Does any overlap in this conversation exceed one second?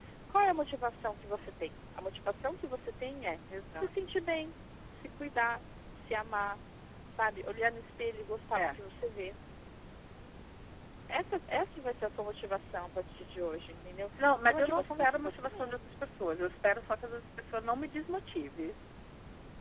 Yes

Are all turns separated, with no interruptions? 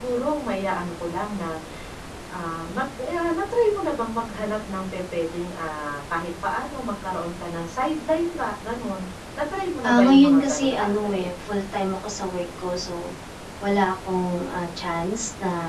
No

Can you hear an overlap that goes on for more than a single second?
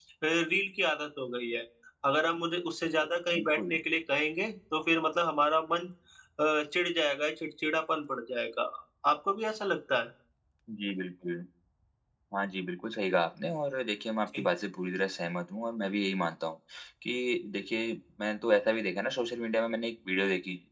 No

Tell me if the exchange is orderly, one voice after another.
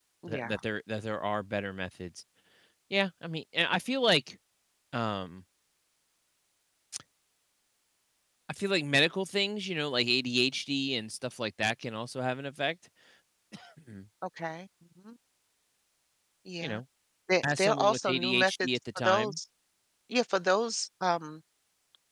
No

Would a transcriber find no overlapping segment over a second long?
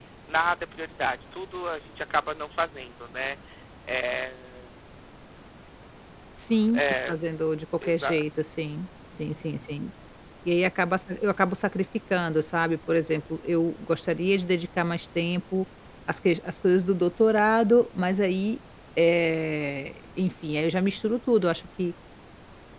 Yes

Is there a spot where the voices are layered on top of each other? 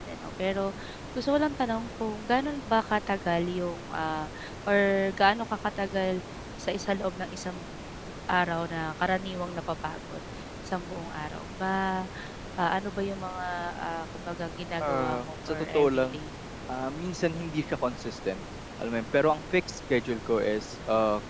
Yes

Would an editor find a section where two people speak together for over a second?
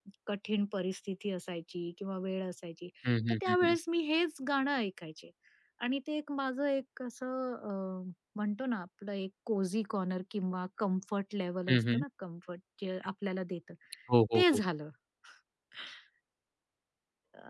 No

